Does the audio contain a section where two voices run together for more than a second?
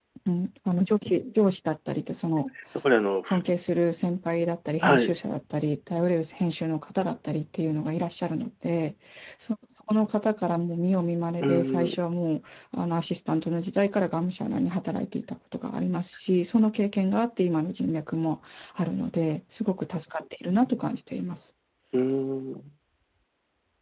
No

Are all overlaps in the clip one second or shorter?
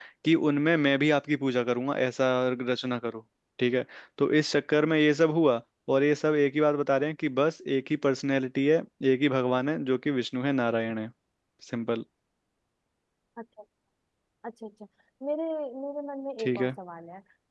Yes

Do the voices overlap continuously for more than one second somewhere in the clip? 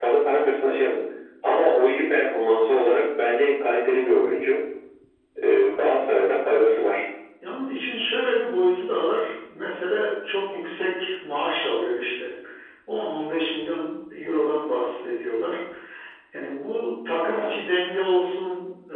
No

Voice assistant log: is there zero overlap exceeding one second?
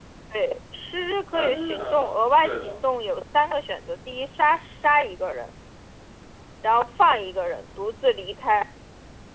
No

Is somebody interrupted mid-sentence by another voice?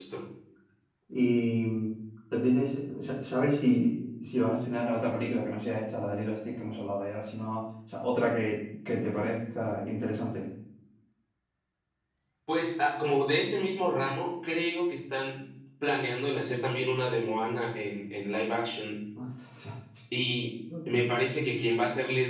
No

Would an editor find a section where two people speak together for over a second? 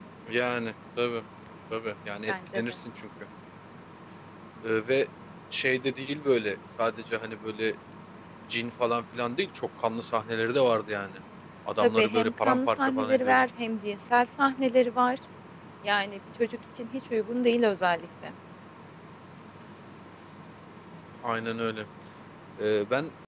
Yes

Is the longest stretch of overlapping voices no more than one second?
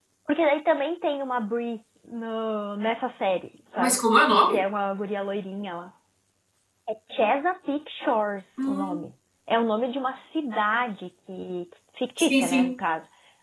Yes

